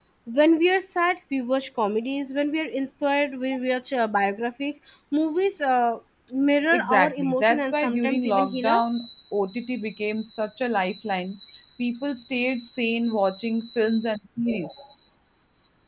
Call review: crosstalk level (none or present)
present